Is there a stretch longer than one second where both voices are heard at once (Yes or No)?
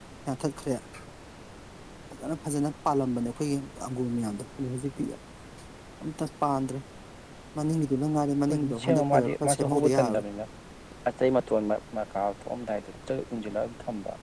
Yes